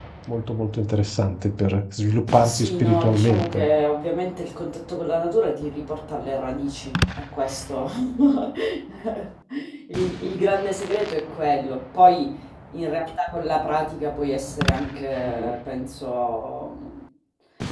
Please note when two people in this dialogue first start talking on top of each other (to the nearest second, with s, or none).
2 s